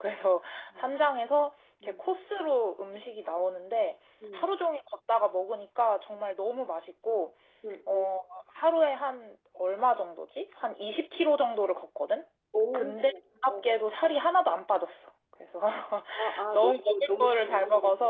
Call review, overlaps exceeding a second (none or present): present